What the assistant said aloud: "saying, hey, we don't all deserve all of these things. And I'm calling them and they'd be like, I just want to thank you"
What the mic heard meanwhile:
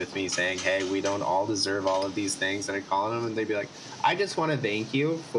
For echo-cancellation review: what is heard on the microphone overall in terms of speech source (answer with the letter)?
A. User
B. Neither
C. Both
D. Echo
D